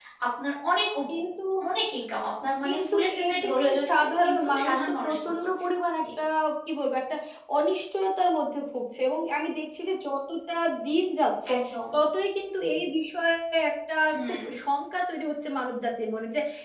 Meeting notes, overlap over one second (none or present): present